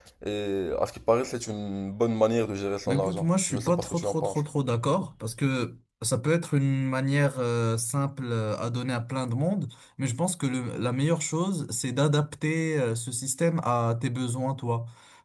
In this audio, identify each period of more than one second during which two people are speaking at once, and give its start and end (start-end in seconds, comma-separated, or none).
2.9-4.4